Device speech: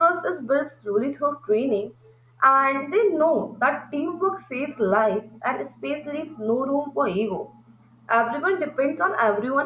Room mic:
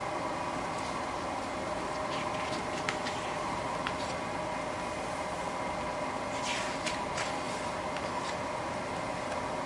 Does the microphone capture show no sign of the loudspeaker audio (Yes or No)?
Yes